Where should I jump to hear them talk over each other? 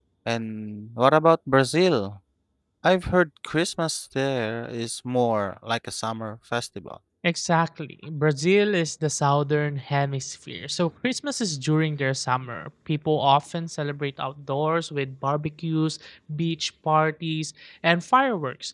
none

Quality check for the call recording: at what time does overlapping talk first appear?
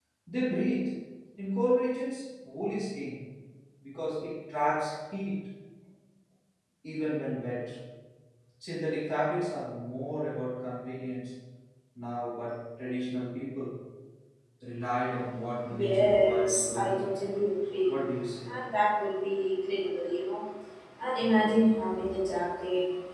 16 s

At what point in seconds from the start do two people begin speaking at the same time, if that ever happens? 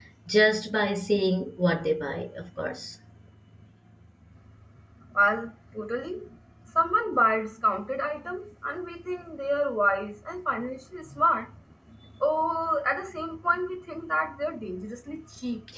none

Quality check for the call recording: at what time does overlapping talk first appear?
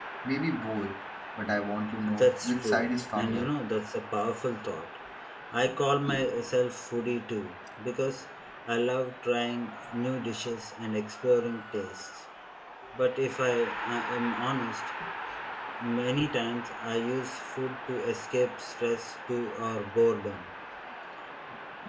2 s

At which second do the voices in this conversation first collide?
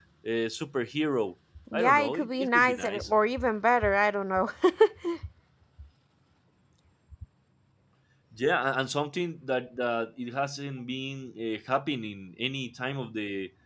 2 s

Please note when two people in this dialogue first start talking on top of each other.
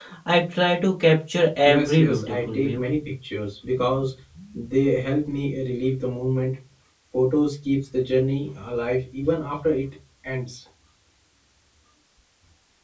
2 s

